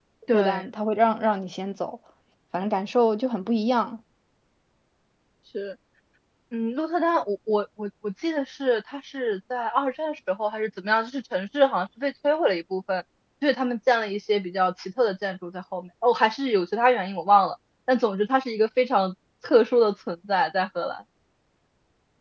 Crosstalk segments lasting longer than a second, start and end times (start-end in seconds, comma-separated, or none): none